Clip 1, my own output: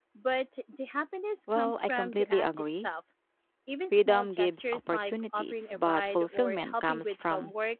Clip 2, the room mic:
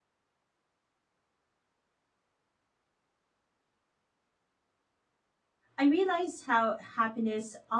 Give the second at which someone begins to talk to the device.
5.8 s

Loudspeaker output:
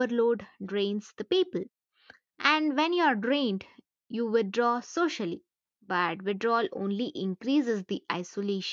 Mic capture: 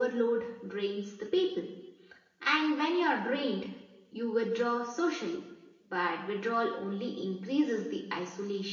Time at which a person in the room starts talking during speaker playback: none

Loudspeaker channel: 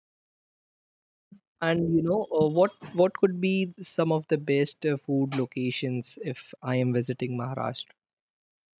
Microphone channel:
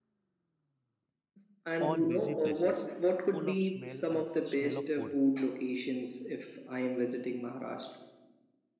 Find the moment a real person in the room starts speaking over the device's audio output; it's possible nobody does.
1.8 s

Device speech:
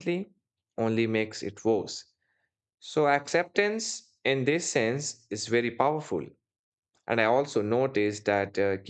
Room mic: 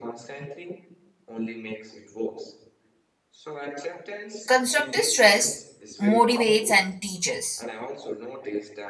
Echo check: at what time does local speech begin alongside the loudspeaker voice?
4.4 s

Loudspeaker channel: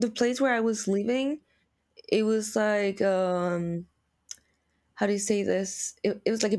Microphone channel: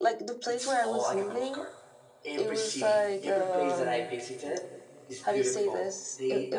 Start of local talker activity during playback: 0.5 s

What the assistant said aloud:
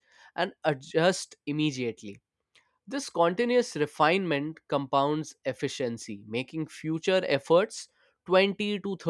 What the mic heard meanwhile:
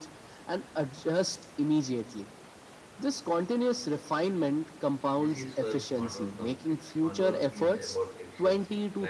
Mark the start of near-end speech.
5.2 s

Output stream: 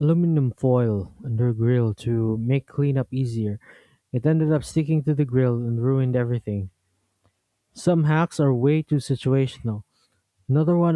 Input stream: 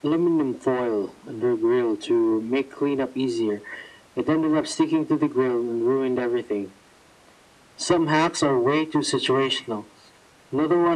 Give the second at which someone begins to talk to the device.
none

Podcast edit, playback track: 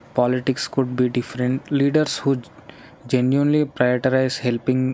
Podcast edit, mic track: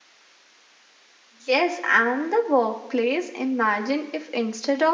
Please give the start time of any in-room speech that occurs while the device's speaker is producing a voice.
1.4 s

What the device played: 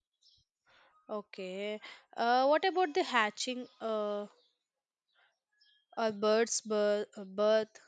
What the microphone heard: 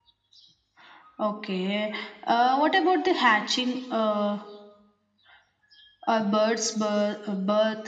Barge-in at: none

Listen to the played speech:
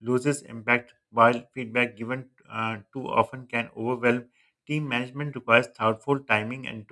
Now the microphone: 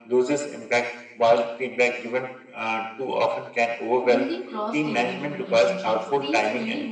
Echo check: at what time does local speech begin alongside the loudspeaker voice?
4.1 s

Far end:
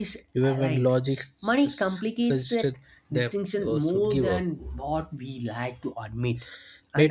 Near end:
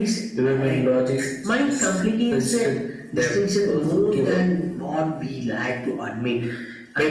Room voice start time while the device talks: none

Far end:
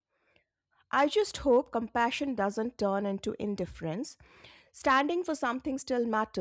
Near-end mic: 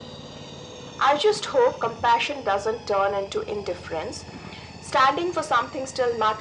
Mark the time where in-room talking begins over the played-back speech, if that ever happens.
none

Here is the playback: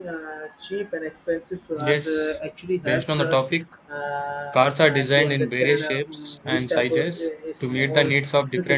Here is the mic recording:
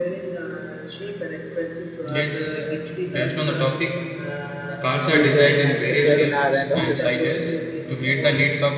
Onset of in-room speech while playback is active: 4.7 s

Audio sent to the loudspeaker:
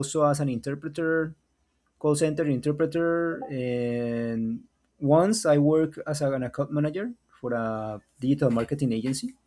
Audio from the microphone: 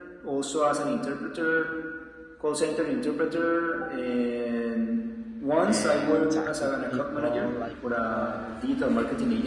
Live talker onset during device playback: 5.7 s

